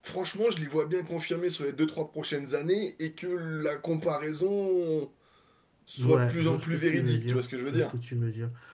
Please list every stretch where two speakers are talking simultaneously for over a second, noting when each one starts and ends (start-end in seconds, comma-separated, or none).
6.0-7.9